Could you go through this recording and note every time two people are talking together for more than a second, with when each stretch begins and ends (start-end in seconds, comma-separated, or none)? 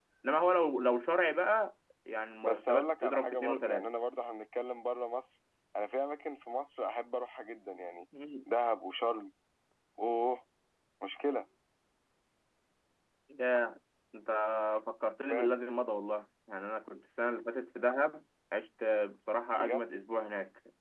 2.4-3.9